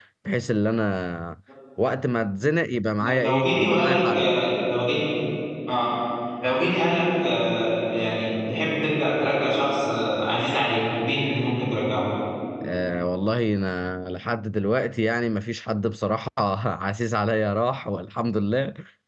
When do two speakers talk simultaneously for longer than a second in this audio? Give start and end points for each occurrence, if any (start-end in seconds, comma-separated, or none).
3.0-4.3